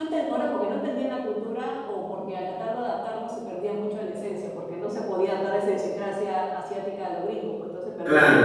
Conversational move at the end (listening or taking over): taking over